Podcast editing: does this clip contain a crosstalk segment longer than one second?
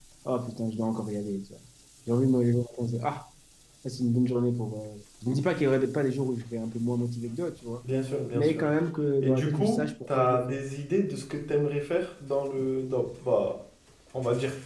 Yes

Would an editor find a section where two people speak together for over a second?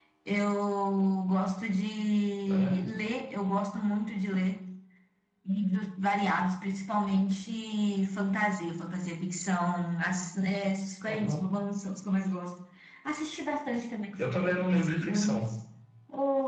Yes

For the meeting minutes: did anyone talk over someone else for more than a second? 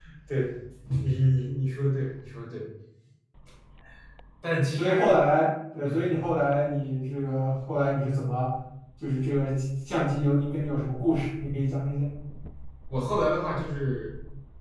No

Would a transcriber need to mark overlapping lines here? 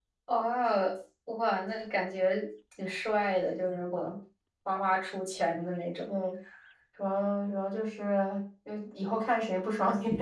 No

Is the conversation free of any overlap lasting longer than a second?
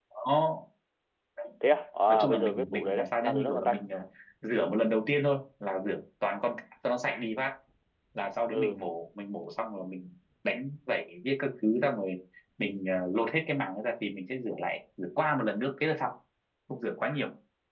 No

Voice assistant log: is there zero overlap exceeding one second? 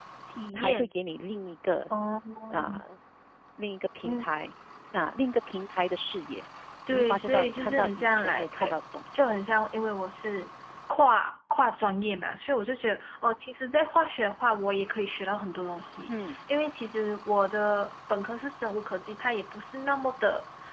No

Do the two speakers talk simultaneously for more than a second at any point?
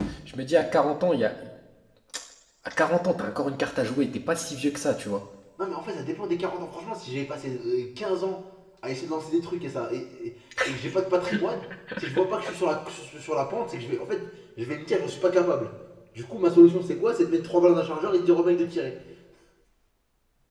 No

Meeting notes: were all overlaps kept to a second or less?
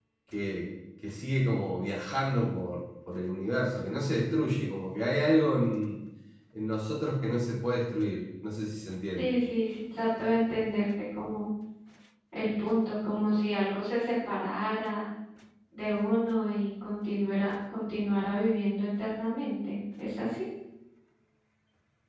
Yes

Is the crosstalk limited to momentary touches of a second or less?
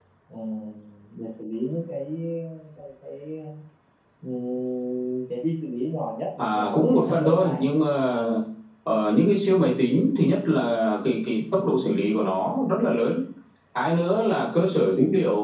No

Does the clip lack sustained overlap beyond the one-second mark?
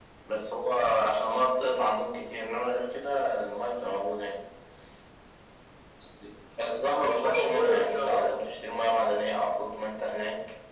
No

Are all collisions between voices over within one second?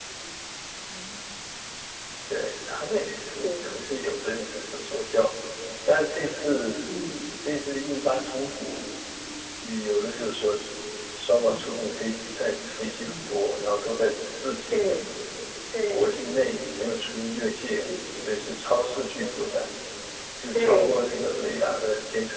No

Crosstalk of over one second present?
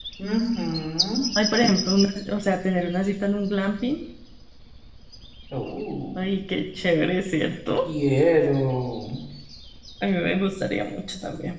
No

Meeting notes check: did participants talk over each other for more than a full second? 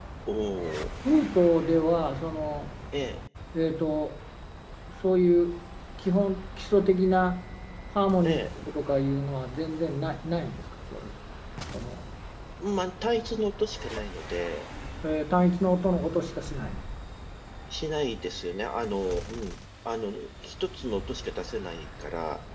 No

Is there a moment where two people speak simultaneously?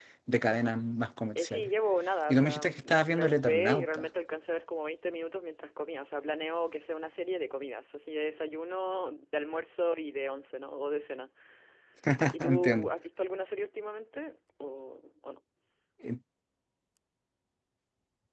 Yes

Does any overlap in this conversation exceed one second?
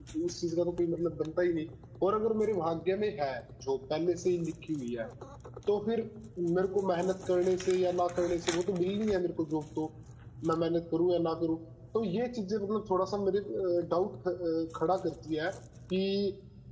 No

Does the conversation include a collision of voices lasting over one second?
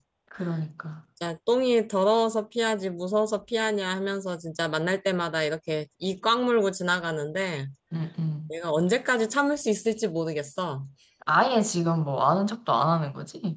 No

